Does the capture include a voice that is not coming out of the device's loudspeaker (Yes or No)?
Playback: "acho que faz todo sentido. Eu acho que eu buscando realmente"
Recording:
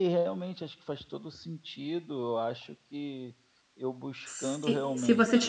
Yes